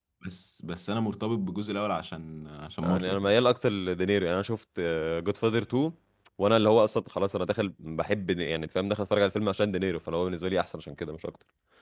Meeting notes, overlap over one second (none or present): none